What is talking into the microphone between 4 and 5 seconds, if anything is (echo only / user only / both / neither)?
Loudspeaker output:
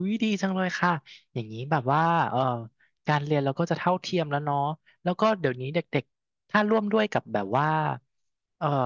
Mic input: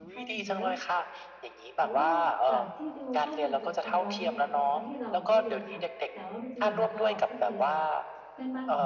both